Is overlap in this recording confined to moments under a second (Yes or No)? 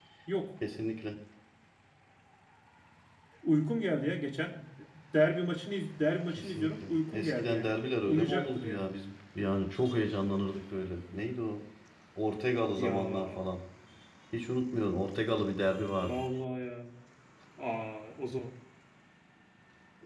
No